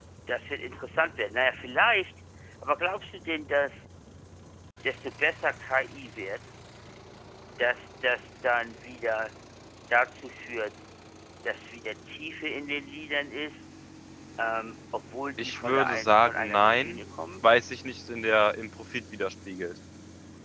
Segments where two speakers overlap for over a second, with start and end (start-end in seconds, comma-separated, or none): 15.4-16.9